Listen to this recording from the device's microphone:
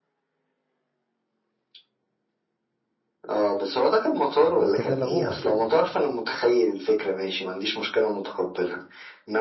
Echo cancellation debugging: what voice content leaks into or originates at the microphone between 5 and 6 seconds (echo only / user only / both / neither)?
both